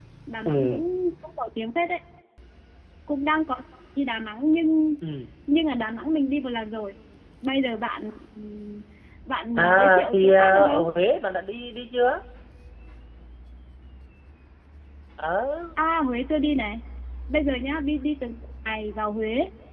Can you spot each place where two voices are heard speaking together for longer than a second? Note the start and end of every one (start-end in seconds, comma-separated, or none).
9.6-10.8